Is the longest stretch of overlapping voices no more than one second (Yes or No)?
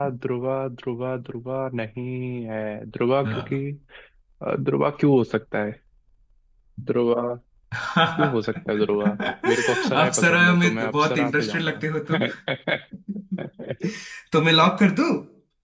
No